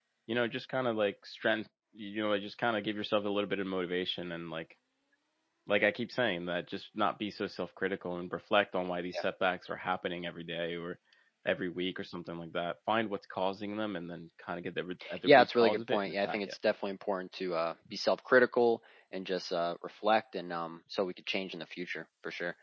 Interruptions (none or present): present